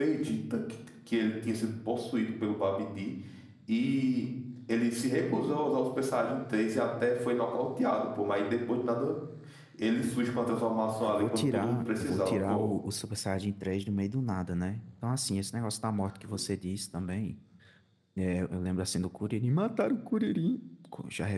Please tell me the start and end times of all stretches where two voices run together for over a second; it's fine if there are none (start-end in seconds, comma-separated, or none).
11.0-12.7